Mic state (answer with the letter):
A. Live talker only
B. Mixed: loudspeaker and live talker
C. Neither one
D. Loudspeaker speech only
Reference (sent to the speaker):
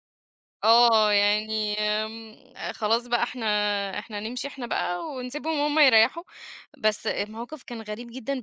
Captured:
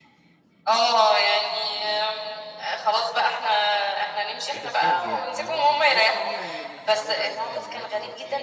B